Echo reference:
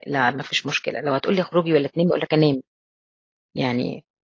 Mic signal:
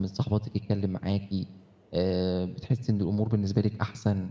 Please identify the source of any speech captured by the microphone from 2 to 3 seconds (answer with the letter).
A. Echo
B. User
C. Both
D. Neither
B